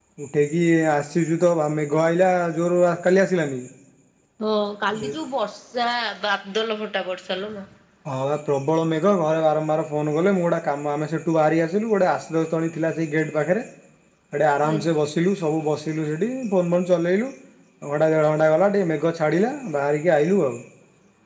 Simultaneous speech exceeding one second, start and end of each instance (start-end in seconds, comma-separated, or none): none